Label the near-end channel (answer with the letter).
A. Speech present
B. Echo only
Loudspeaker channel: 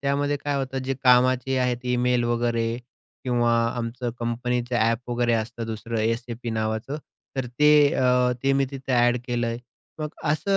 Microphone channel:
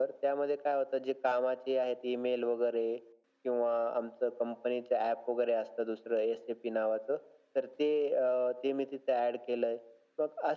B